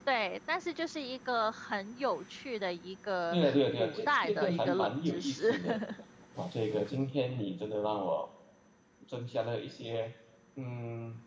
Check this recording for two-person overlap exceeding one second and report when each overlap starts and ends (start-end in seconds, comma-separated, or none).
3.3-5.5